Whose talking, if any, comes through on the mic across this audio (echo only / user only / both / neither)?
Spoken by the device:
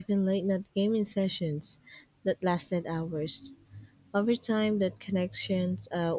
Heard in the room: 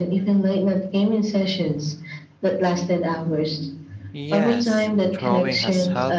both